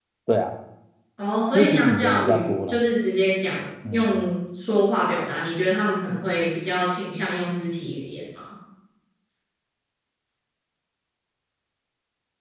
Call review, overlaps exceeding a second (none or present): present